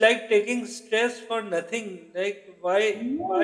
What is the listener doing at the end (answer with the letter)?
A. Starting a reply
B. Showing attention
B